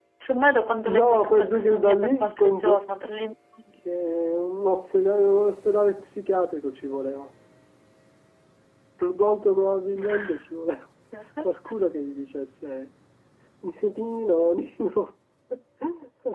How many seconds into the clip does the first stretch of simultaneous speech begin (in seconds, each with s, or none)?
0.9 s